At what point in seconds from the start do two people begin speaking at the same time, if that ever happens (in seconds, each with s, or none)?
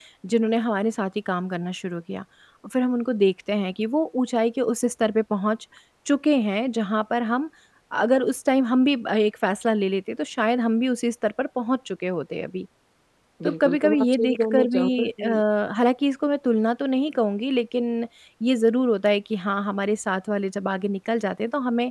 13.4 s